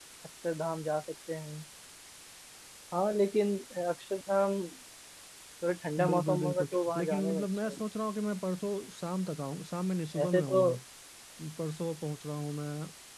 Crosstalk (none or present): present